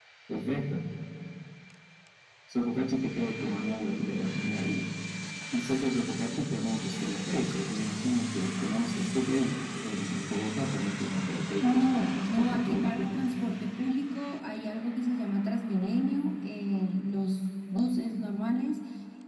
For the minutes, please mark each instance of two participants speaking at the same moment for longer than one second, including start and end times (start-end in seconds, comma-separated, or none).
11.6-13.1